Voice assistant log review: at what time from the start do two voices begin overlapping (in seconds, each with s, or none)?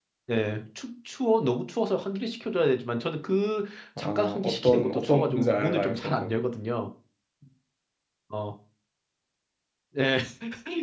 4.0 s